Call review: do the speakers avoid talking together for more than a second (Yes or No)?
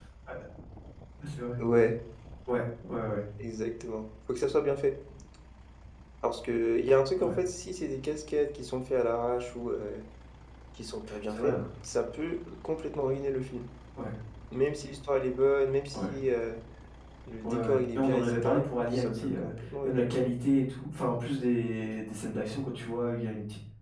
No